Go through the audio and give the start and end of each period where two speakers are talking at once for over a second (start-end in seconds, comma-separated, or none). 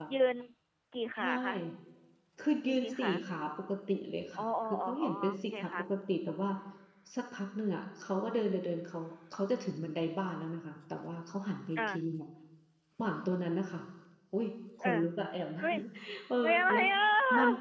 4.4-5.9